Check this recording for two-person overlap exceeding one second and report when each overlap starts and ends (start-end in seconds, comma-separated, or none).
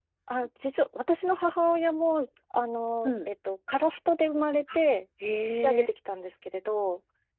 none